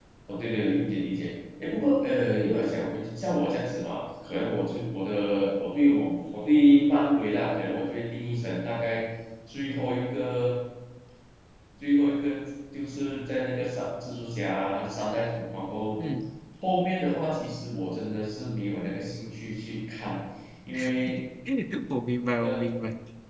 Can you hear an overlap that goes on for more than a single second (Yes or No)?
No